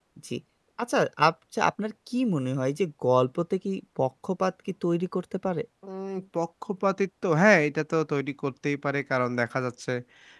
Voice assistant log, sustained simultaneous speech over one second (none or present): none